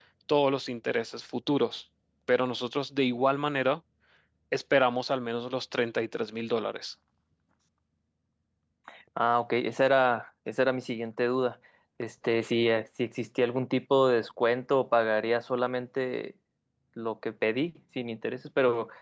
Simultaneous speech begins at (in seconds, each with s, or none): none